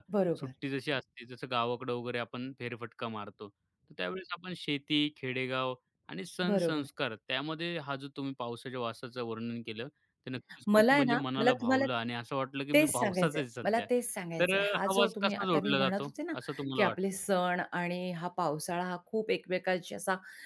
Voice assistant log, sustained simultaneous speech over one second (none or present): present